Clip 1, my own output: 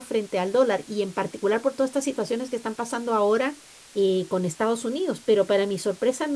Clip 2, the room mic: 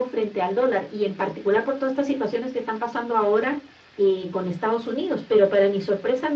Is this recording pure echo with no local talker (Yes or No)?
Yes